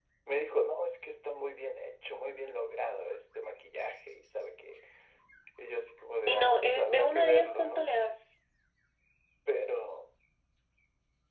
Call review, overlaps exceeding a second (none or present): present